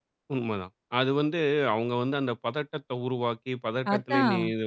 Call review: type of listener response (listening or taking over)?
listening